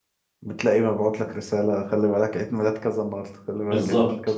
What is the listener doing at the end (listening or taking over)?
taking over